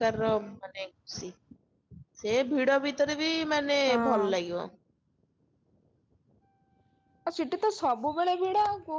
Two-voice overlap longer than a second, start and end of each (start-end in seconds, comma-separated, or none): none